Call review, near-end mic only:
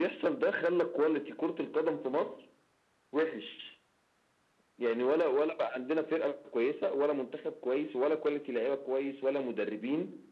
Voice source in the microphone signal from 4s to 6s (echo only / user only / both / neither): echo only